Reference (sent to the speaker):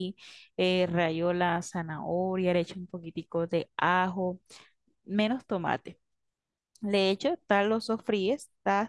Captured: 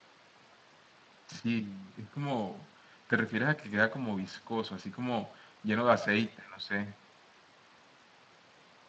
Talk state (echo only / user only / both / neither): user only